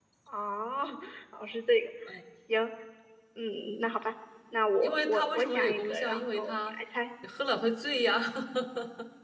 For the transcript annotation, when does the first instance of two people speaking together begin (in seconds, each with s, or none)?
4.8 s